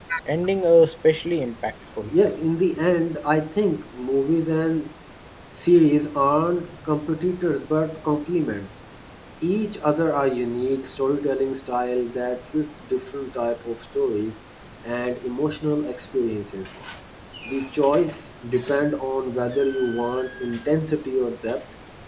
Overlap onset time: none

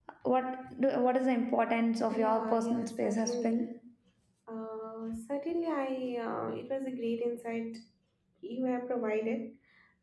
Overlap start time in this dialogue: 2.1 s

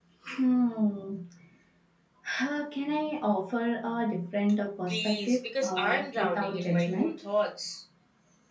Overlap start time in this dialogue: 4.9 s

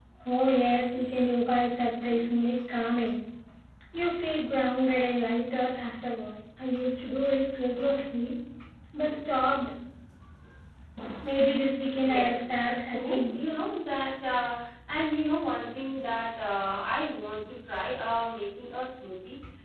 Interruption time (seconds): 11.9 s

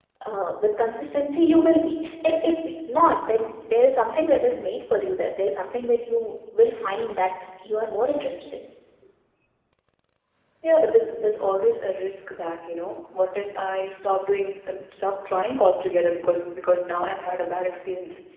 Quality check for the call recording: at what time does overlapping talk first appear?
none

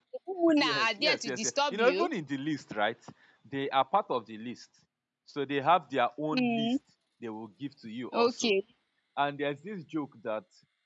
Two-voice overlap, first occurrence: 0.6 s

